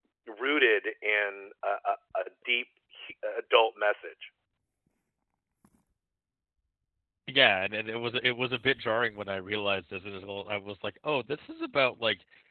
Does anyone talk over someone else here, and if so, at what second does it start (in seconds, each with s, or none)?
none